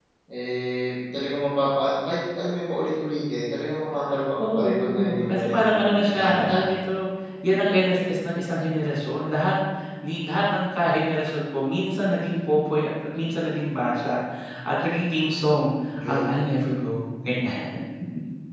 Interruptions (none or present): present